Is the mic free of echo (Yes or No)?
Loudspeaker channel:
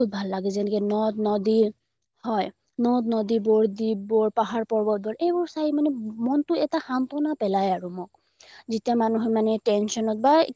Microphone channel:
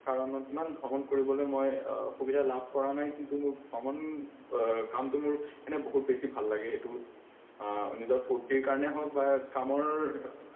Yes